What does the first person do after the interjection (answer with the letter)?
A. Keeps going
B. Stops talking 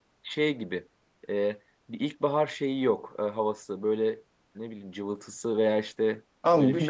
B